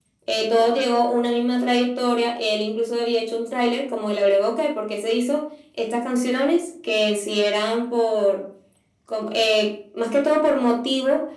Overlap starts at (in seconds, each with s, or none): none